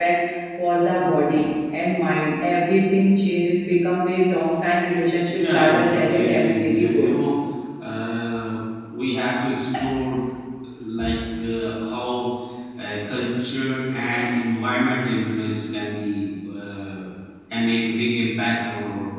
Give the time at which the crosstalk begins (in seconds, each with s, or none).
5.2 s